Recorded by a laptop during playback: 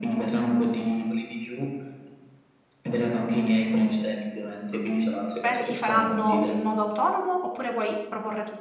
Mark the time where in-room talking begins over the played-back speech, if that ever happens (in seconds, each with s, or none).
4.7 s